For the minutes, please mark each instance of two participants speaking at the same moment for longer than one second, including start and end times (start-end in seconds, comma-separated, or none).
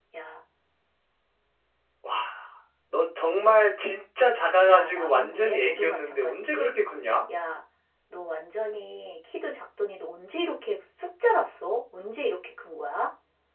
4.7-6.7